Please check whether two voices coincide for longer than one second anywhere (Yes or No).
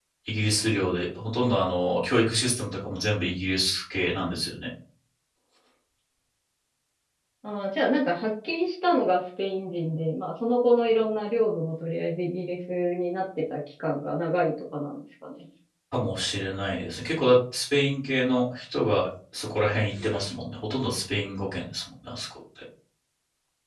No